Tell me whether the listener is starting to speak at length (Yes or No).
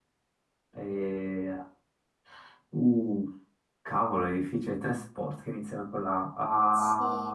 Yes